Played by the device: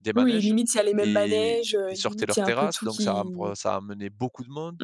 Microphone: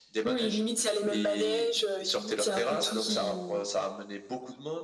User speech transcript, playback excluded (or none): none